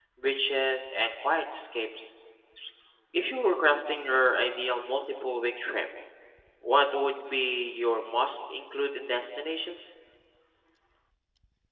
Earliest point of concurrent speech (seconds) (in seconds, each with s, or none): none